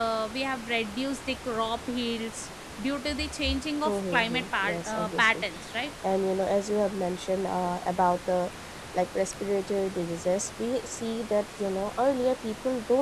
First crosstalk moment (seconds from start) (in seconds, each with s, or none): 3.9 s